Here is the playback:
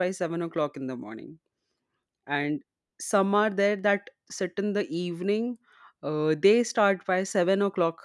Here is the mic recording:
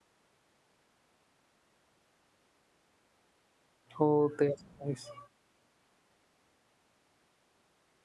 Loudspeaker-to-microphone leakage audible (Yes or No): No